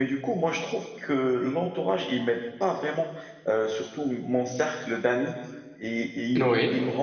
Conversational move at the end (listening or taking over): listening